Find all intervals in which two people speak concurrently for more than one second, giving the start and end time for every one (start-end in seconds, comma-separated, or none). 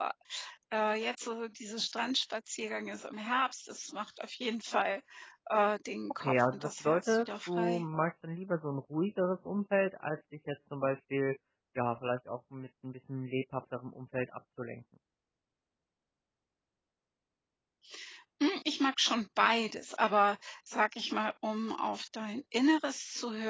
6.2-7.8